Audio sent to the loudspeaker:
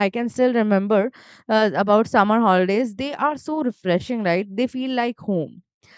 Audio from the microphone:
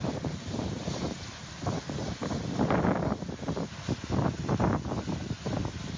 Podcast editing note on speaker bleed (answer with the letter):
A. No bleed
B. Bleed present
A